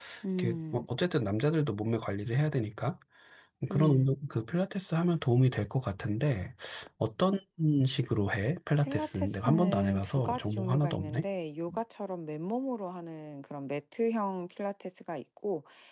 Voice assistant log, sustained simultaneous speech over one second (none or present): present